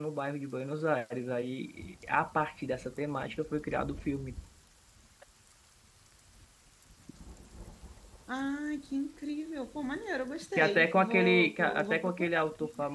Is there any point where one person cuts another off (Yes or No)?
Yes